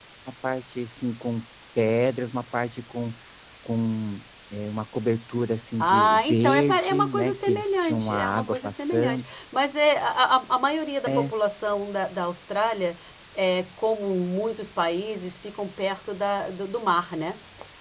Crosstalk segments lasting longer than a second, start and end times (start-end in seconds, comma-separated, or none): 5.8-9.2